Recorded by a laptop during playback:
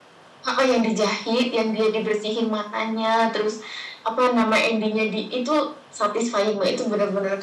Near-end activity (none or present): none